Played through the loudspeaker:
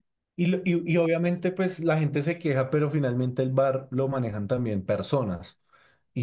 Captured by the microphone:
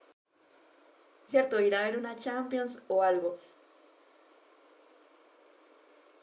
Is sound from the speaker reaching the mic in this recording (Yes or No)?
No